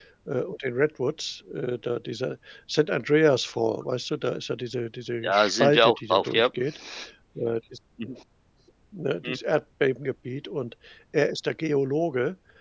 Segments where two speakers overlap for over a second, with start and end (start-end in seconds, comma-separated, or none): 5.2-6.5